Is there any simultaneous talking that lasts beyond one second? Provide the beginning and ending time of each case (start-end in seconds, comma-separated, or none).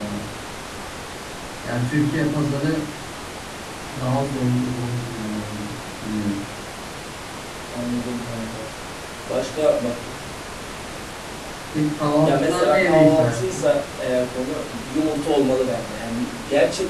12.2-13.6